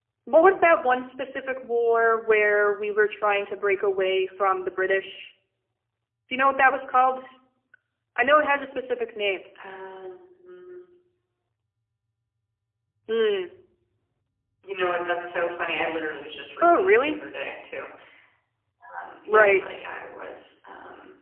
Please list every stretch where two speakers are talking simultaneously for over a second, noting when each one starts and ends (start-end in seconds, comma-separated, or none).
none